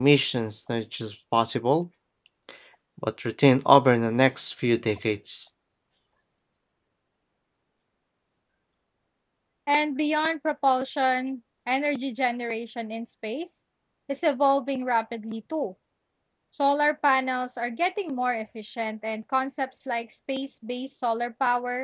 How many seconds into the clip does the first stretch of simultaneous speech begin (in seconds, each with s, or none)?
none